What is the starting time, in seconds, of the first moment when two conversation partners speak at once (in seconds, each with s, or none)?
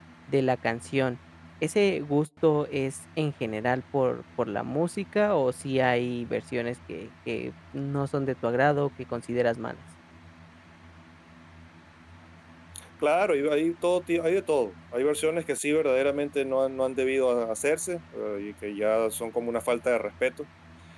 none